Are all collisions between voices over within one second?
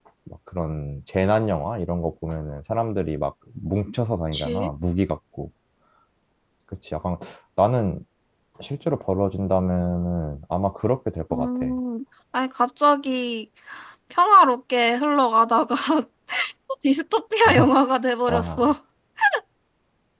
Yes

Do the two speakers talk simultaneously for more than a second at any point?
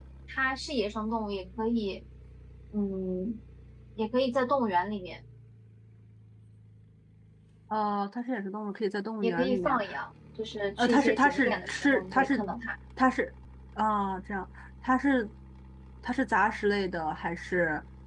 Yes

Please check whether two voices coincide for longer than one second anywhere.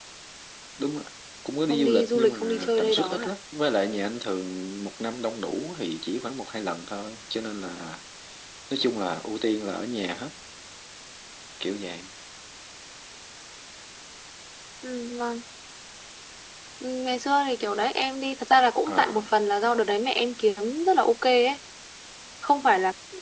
Yes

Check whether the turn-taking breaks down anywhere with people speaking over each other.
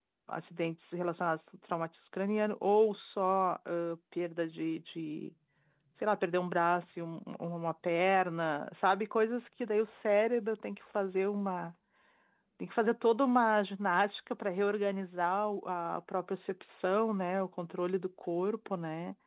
No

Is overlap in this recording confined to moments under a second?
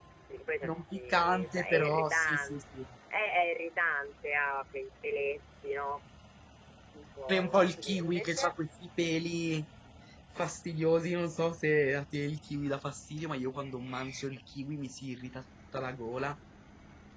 No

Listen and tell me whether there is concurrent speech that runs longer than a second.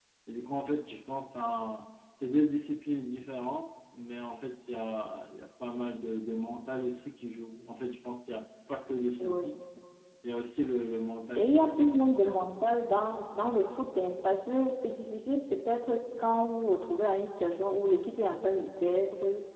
No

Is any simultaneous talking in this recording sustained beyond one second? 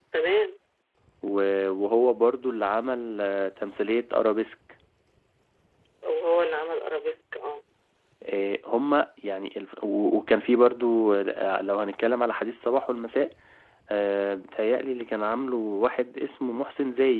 No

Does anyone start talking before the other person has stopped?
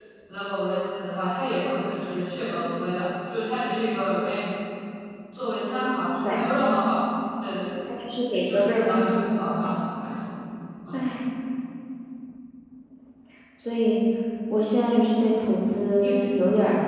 Yes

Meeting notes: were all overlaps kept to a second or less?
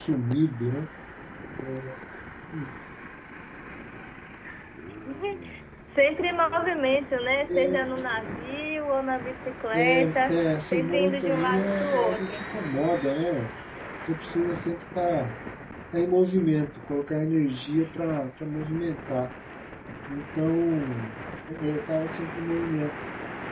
No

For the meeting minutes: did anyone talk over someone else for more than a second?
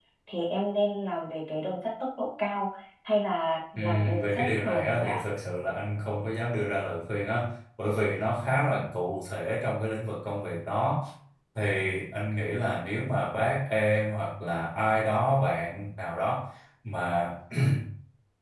Yes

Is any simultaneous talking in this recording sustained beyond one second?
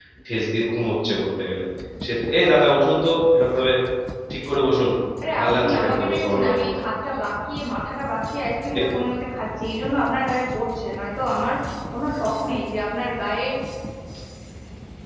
Yes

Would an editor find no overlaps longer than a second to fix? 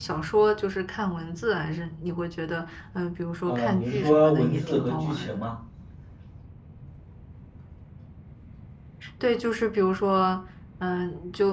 No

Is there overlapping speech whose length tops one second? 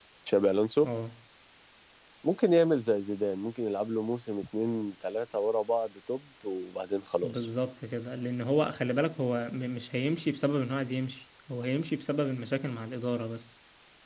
No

